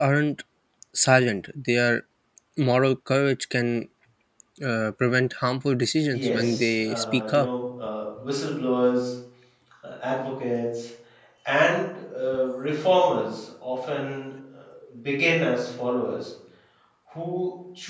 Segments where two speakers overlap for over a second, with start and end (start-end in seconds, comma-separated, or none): 6.1-7.5